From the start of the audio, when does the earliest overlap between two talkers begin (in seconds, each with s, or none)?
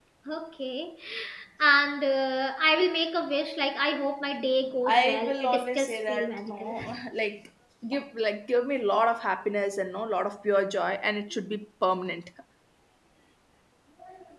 4.9 s